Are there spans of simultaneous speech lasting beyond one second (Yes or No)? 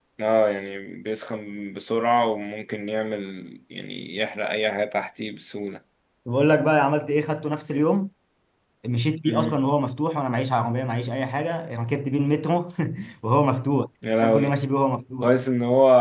No